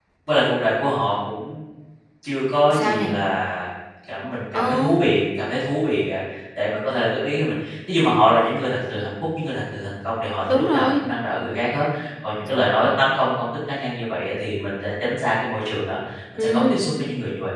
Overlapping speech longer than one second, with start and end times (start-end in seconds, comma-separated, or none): none